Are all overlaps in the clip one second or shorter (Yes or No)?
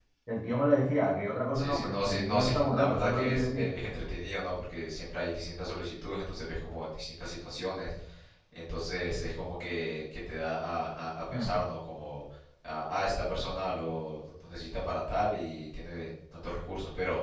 No